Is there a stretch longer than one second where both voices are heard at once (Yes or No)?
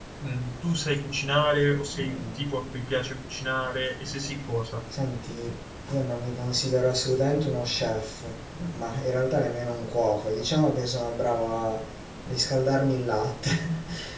No